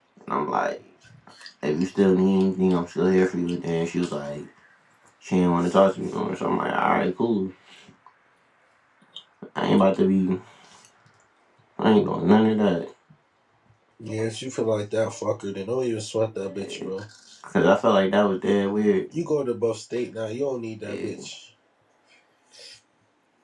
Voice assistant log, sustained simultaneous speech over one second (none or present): none